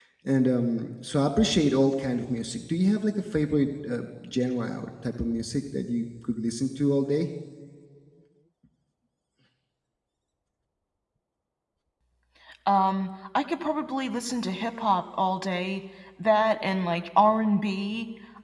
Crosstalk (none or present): none